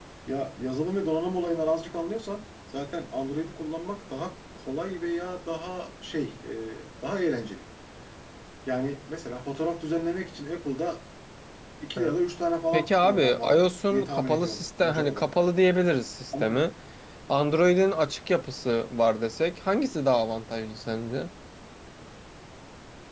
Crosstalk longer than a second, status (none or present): present